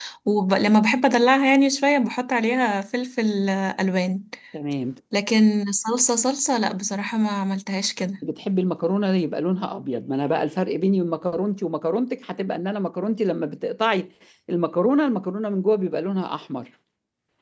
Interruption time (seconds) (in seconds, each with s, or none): none